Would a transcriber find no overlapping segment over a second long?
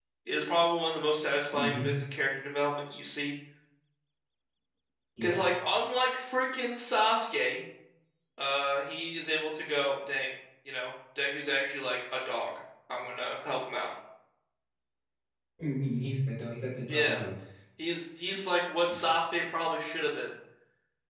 Yes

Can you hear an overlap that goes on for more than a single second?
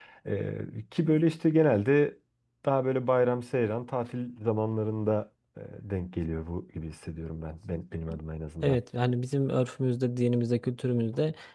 No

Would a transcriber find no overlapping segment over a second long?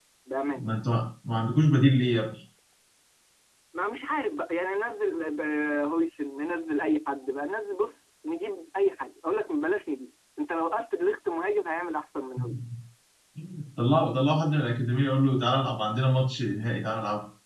Yes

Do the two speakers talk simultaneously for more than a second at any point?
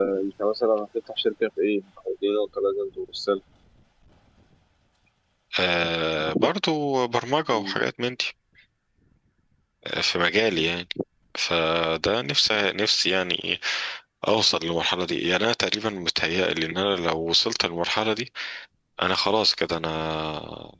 No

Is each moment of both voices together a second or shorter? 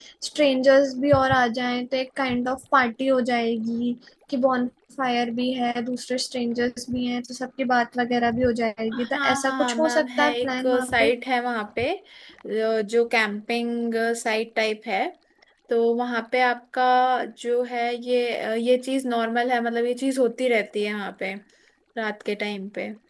No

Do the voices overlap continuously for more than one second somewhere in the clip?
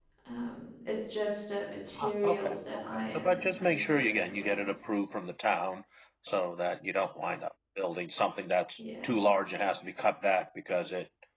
Yes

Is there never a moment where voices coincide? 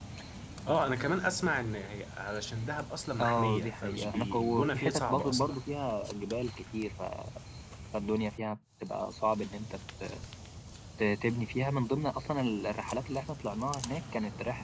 No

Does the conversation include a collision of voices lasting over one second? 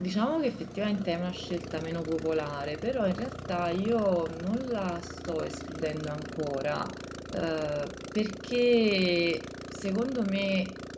No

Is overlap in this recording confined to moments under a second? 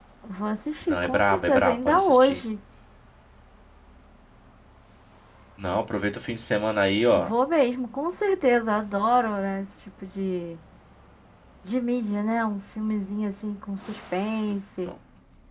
No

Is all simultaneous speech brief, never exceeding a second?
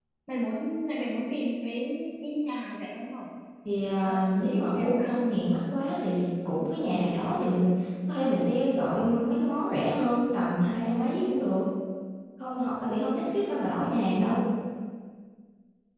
No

